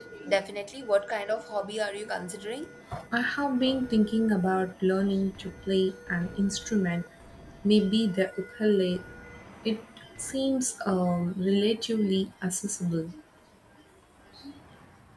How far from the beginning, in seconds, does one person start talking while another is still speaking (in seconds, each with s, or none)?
none